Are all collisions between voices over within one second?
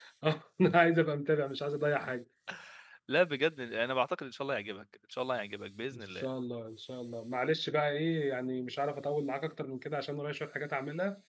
Yes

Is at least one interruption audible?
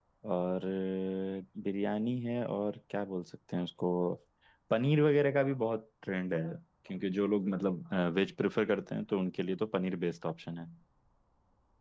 No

